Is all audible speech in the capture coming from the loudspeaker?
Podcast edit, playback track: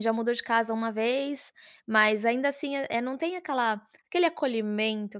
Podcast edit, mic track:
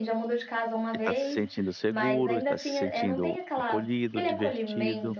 No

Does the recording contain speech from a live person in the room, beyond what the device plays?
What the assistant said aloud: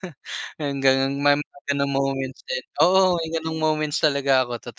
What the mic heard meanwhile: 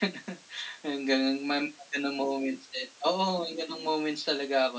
No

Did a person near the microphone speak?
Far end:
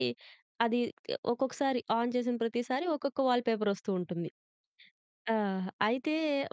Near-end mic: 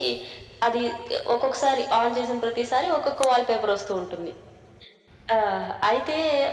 No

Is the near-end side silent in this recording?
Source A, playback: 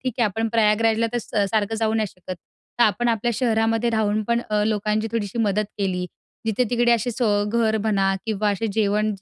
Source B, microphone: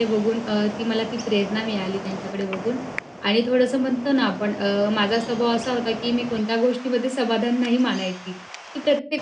No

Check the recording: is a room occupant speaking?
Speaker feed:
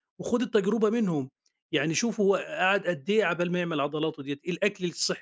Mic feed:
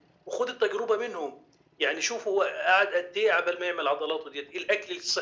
No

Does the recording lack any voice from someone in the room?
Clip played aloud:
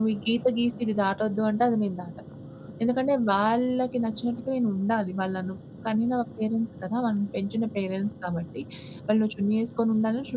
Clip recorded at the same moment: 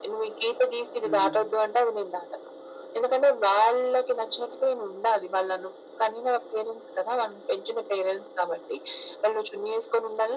No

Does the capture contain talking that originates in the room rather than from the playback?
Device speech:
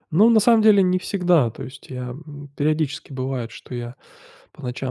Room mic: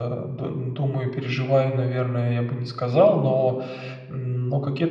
Yes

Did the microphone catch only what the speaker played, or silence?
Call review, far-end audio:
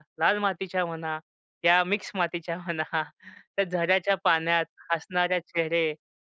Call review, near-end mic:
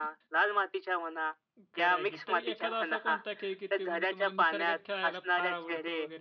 No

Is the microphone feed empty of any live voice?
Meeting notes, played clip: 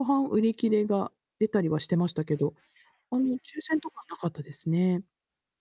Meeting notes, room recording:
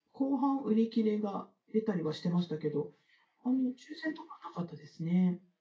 Yes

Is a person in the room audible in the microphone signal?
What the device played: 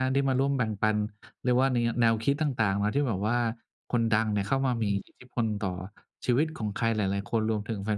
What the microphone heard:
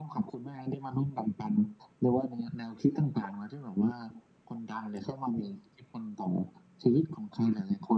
No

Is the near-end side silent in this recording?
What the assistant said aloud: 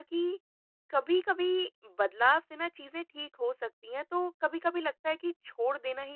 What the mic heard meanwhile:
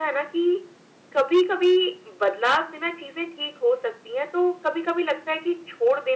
Yes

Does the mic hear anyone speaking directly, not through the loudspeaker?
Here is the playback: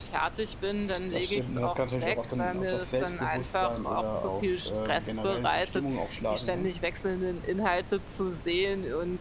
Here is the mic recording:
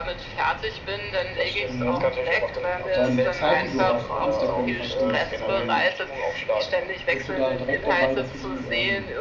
Yes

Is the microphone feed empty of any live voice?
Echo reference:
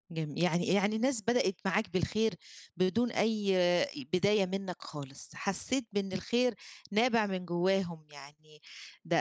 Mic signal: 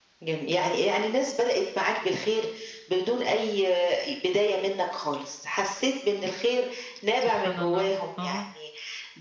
No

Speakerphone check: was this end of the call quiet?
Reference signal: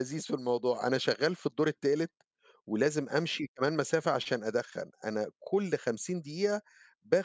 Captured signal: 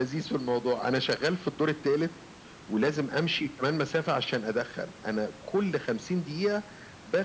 Yes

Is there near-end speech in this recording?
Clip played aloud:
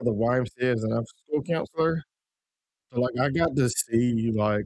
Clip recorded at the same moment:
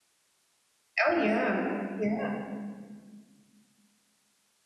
Yes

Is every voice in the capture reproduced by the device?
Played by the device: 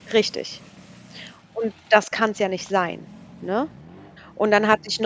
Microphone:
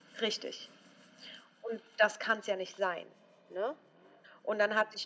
Yes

